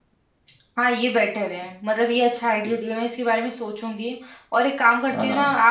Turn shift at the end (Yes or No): No